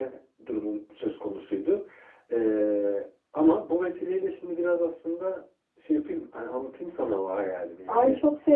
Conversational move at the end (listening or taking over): taking over